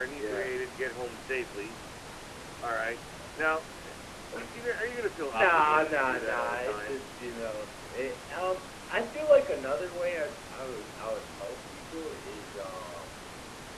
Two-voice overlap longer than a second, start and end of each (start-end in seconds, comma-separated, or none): 5.3-7.0